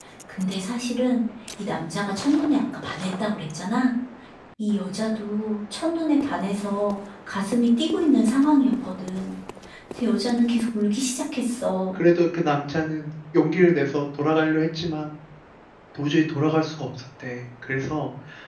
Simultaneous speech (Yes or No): No